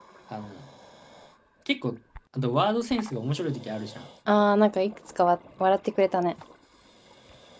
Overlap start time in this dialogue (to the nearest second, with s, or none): none